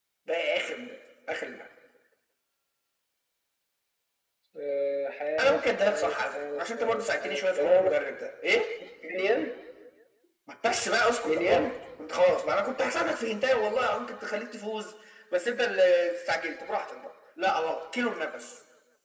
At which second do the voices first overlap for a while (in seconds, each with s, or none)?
5.4 s